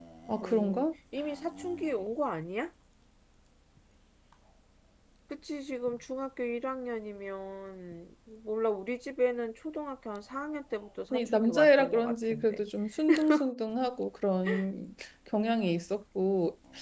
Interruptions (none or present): present